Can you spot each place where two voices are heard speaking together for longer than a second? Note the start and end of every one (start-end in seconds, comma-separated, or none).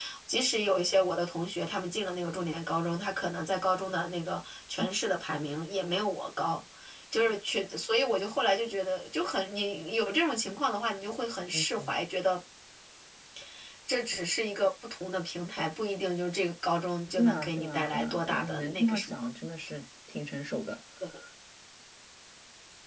17.2-19.3